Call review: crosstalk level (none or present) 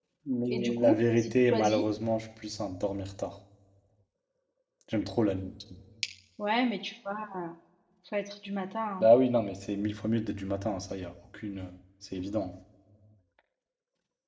present